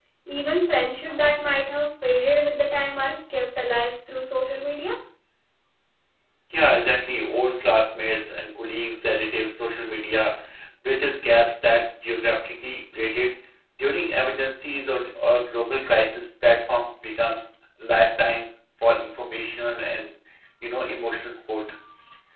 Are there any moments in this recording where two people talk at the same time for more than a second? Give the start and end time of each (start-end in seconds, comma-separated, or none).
none